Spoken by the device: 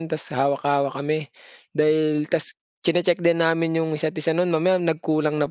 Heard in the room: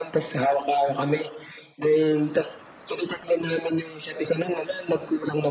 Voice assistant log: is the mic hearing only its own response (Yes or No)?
Yes